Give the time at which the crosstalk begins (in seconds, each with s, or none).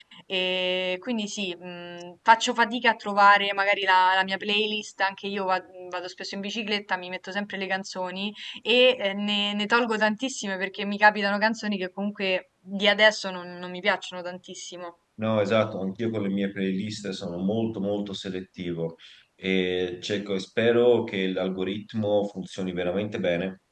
none